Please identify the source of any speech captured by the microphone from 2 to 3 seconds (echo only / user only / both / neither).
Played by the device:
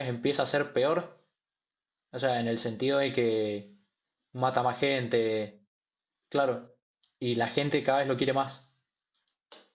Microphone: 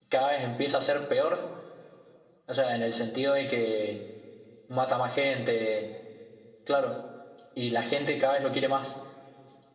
echo only